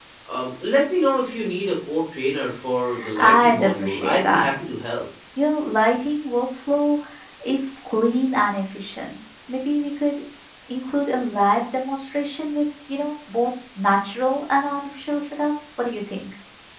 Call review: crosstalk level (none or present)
present